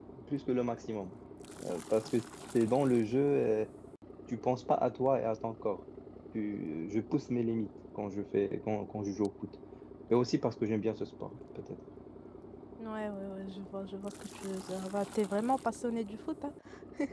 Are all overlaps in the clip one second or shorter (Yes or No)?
Yes